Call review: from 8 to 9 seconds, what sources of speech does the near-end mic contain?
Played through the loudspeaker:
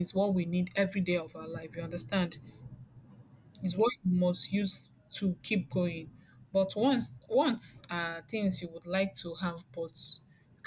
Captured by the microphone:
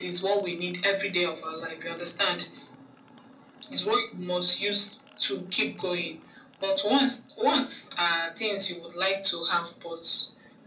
echo only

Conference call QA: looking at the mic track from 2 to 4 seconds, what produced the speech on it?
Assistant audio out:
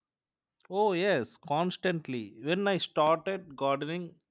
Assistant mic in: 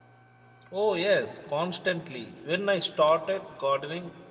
echo only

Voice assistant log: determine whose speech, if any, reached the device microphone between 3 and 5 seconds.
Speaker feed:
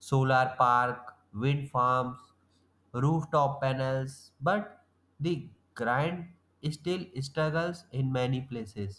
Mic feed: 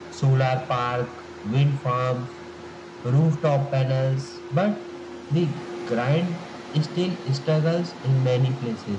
echo only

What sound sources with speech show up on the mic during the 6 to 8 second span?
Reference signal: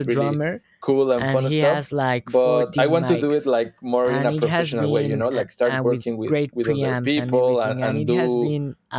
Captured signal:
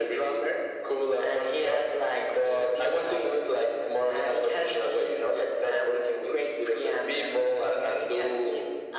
echo only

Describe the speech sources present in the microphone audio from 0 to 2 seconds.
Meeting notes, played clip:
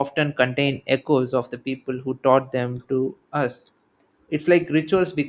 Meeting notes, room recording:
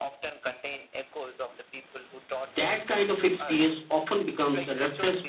echo only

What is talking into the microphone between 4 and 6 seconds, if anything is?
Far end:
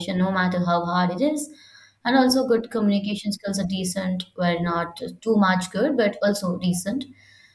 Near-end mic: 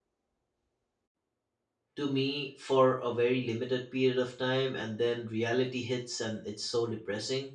user only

